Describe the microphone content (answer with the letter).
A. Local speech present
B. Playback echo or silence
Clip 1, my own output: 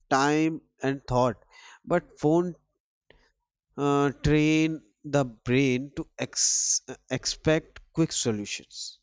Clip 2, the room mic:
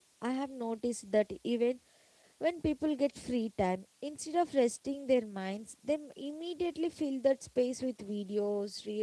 A